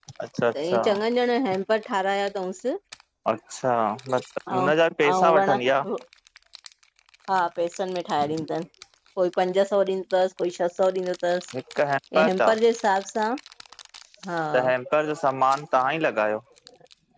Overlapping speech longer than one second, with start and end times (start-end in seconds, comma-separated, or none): none